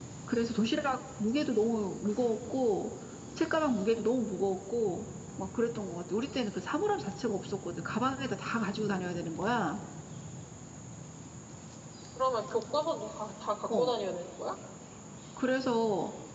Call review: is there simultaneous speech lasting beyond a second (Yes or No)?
No